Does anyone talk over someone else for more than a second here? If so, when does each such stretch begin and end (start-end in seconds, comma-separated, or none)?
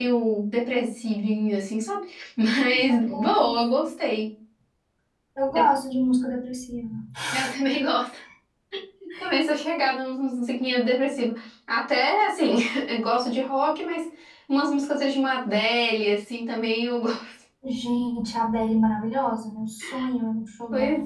2.6-3.9